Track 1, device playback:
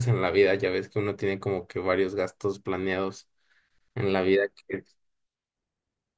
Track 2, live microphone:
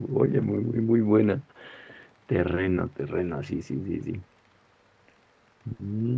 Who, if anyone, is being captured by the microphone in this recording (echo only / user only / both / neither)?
user only